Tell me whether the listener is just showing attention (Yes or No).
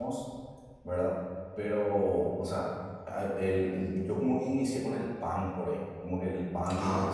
Yes